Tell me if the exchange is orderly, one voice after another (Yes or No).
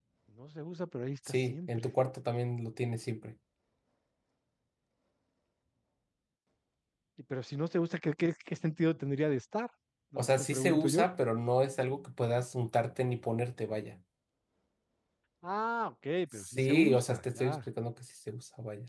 No